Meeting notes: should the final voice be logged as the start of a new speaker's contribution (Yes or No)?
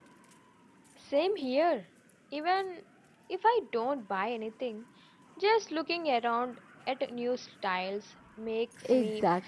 Yes